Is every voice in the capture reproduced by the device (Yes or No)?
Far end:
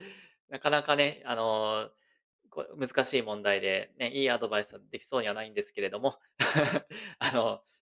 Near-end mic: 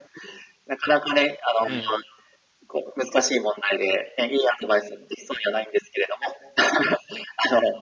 No